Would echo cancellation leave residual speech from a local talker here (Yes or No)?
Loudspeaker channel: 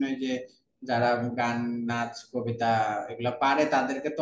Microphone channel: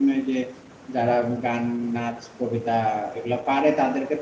No